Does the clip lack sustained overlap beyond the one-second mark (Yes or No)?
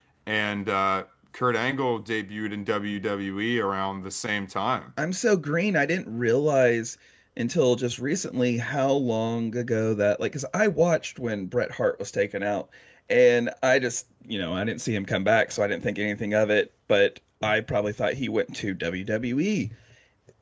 Yes